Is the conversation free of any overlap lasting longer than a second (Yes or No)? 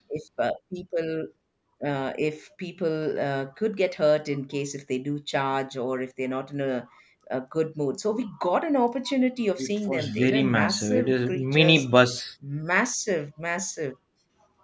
No